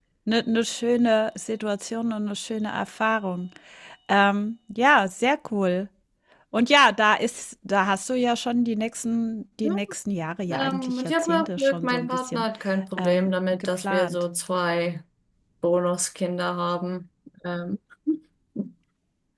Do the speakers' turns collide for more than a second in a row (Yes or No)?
Yes